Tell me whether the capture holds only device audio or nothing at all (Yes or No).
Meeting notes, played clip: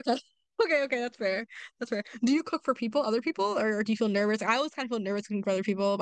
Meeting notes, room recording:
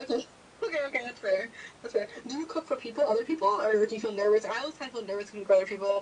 Yes